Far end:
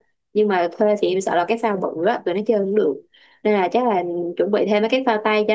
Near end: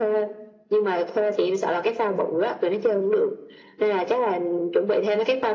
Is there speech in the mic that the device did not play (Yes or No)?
No